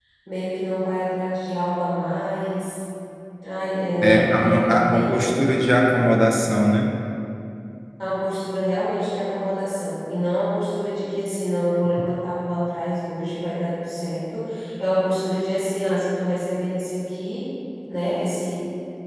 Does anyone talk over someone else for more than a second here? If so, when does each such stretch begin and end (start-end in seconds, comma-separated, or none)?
4.0-5.3